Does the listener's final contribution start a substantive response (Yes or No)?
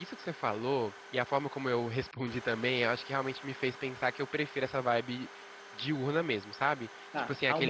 No